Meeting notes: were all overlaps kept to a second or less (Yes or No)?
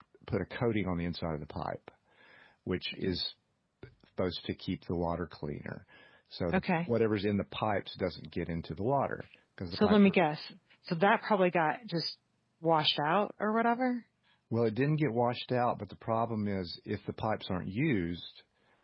Yes